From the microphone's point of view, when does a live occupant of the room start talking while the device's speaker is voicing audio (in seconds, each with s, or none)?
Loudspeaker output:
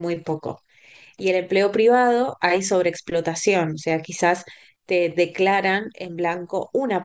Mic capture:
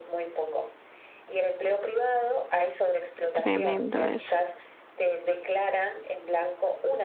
3.4 s